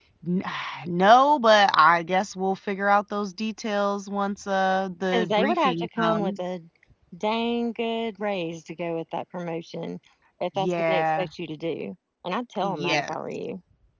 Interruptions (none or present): present